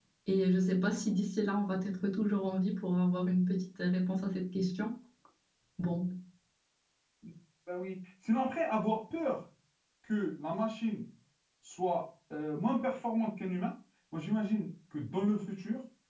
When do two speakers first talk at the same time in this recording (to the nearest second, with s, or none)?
none